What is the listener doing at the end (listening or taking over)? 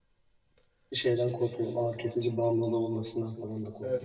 taking over